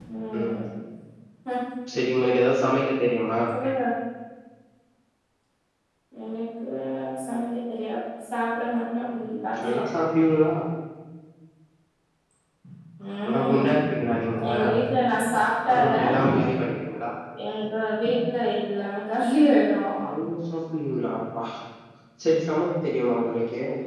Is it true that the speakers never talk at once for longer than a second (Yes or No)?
Yes